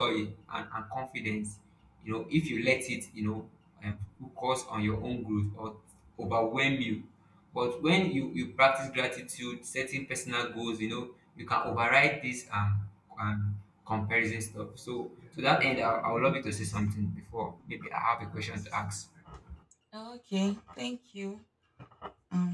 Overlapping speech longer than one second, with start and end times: none

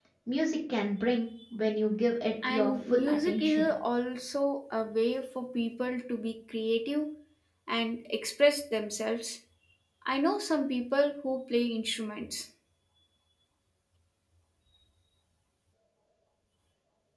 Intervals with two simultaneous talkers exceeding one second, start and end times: 2.5-3.7

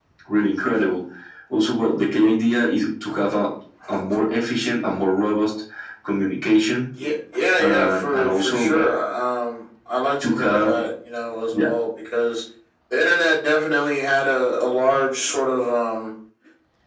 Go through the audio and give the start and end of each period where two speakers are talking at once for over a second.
7.6-8.9

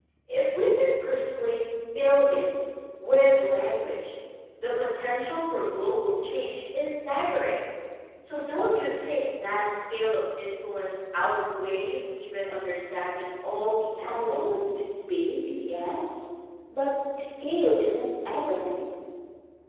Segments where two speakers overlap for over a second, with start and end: 13.2-14.5

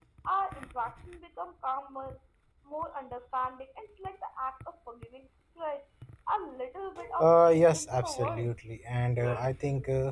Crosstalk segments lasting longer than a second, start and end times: 7.2-8.5

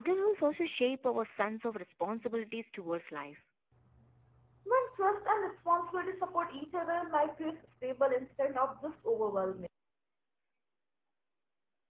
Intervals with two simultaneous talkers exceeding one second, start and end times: none

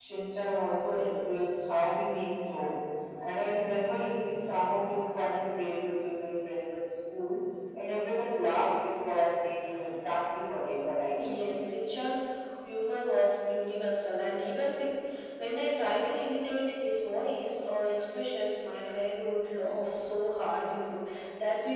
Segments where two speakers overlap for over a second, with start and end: none

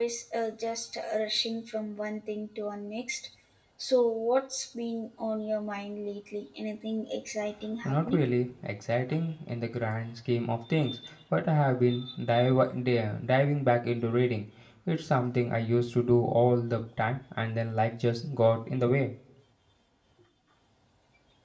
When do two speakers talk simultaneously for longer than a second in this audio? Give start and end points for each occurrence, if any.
none

